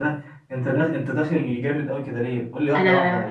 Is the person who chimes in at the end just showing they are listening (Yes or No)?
Yes